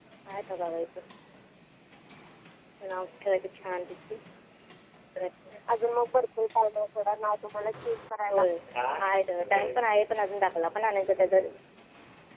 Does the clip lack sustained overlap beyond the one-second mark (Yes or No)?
Yes